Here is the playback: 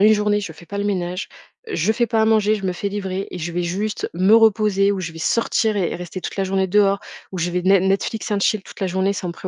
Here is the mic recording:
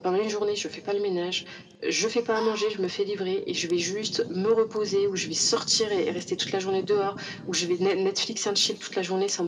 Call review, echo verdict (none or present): present